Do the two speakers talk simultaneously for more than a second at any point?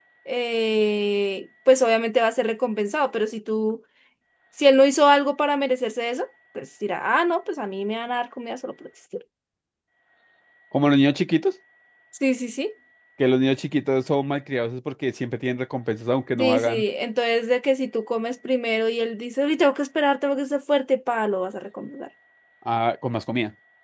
No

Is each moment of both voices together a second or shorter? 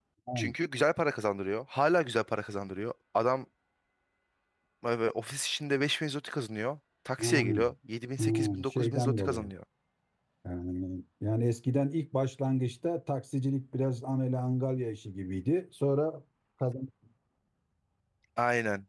No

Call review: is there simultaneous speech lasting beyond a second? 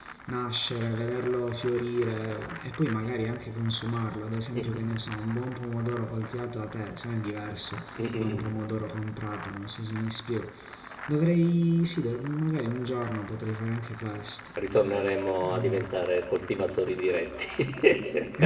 No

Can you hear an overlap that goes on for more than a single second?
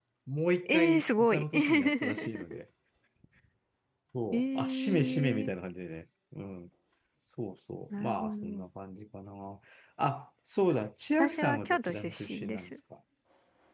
Yes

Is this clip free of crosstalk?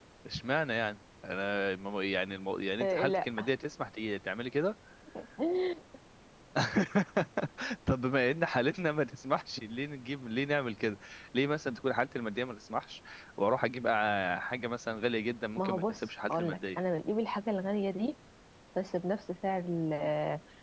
No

